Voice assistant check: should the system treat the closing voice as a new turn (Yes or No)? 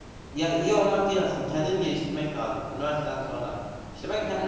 No